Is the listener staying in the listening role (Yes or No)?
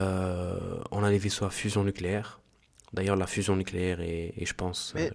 No